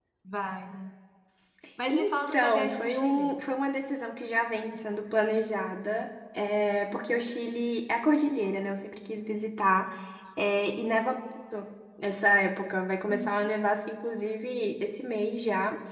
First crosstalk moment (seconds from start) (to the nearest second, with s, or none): 2 s